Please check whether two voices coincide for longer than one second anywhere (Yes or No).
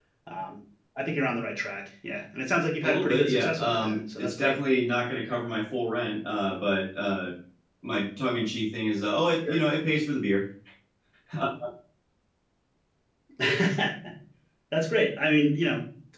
Yes